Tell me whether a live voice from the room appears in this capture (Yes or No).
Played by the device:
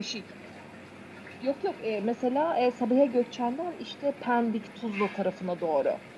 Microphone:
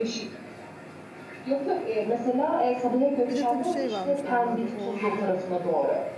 Yes